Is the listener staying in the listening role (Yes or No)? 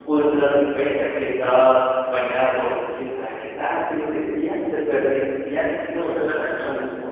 No